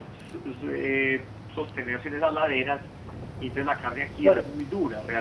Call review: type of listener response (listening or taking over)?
listening